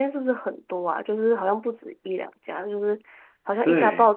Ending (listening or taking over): listening